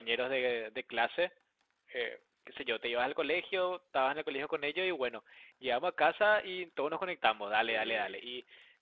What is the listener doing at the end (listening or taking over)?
listening